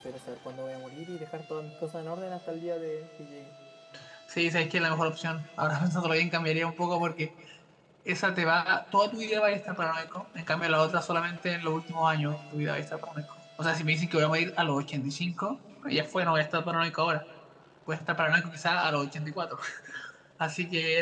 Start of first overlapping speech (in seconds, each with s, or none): none